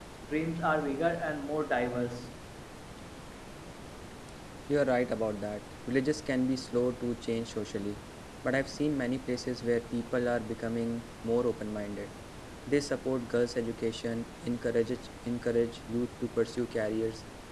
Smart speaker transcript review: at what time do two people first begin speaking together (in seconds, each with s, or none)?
none